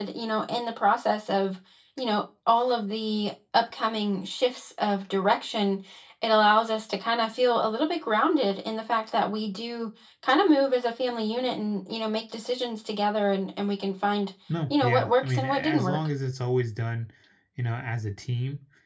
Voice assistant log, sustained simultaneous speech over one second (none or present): present